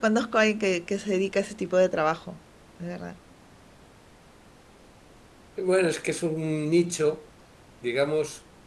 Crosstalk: none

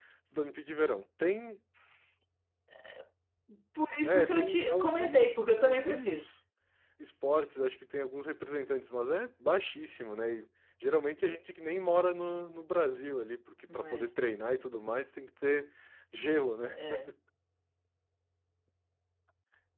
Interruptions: present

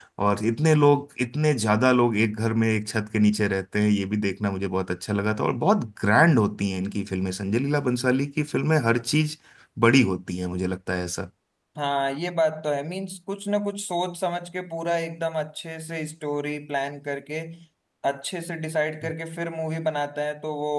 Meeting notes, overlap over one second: none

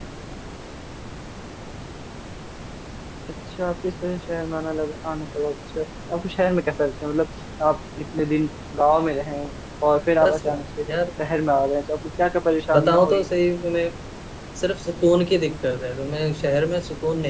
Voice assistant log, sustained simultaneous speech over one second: none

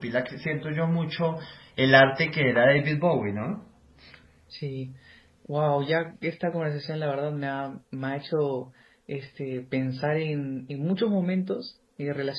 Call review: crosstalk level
none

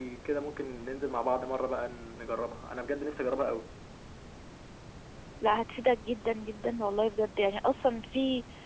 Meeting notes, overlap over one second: none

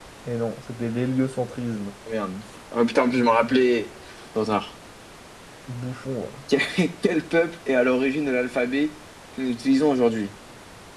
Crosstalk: none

